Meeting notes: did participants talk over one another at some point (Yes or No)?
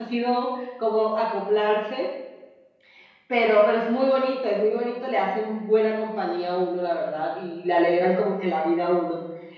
No